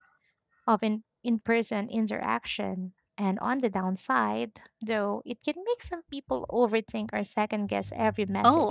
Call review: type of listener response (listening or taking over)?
taking over